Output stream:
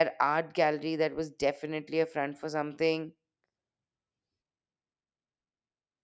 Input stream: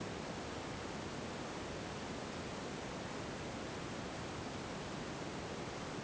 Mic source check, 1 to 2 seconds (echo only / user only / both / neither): neither